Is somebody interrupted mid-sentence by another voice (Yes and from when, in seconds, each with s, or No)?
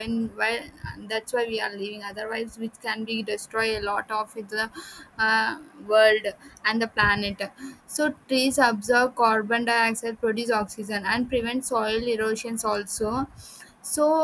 No